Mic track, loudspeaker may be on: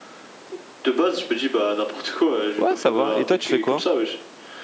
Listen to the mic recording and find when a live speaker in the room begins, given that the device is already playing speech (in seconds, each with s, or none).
2.6 s